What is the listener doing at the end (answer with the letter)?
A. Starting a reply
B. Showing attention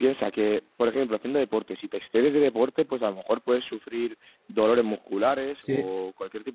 B